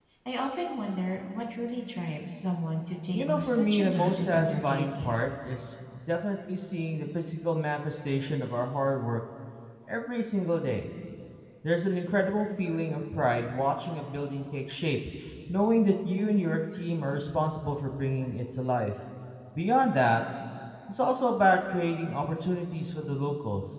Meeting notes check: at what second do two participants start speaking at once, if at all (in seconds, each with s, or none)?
3.1 s